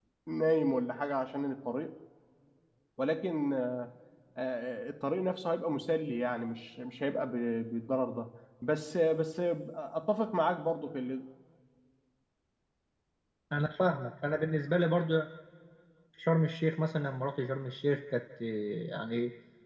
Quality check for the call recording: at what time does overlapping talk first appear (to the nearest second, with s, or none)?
none